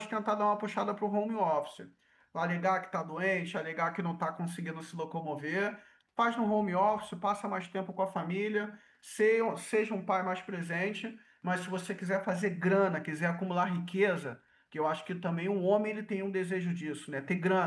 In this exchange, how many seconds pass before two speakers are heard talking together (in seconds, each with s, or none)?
none